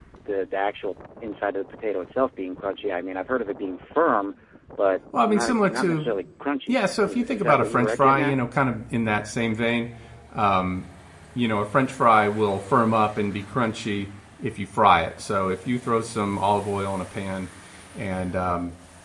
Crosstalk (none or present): present